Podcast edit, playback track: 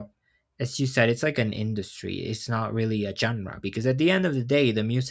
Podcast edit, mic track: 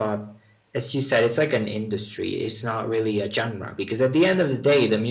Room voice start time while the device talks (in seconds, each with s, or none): none